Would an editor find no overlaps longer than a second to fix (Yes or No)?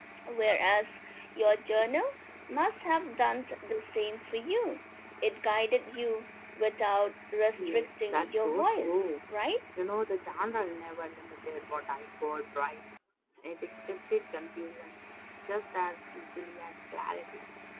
No